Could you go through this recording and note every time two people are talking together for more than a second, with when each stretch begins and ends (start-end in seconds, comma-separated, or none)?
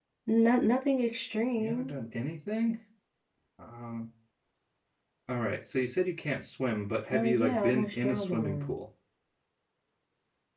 7.1-8.8